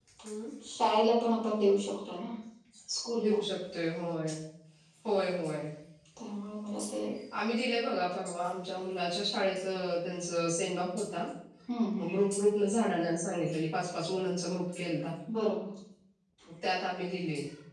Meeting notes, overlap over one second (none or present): none